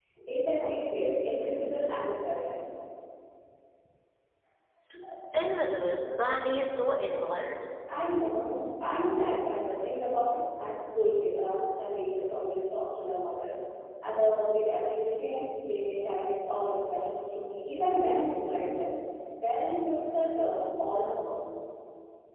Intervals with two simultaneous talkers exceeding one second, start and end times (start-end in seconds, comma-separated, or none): none